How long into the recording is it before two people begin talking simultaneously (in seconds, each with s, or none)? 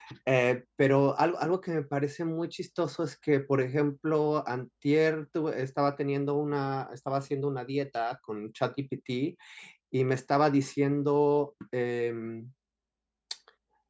none